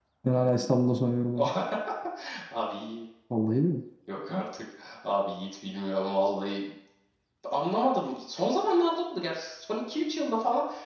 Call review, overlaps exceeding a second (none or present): none